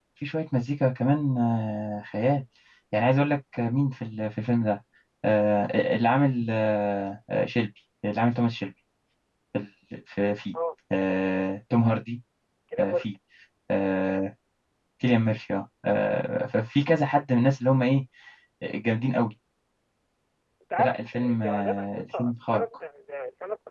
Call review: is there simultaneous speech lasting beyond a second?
Yes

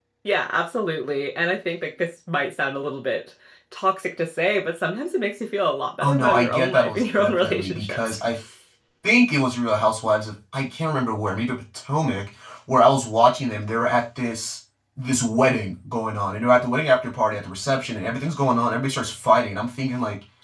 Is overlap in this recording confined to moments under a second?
No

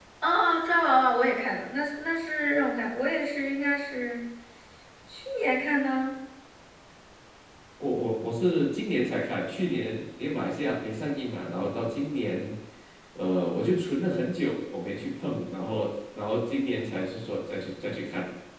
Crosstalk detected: No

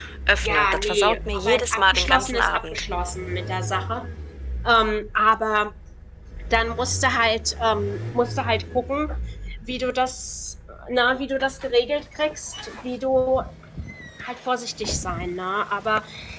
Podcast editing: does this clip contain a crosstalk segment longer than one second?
Yes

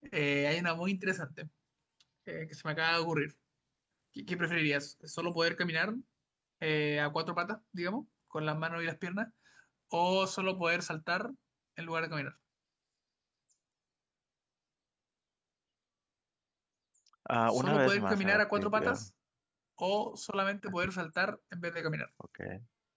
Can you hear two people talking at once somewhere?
Yes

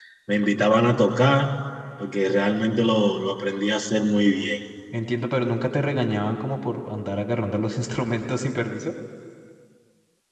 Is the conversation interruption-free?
Yes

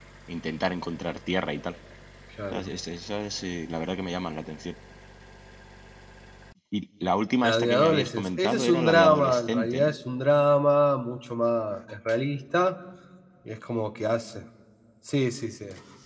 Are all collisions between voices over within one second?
No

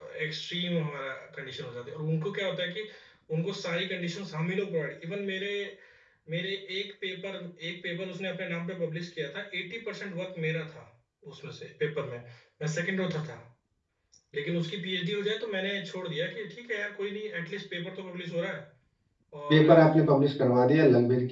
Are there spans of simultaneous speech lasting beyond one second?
No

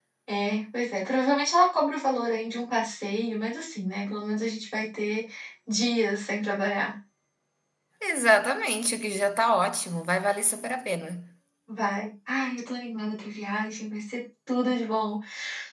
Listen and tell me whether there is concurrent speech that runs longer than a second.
No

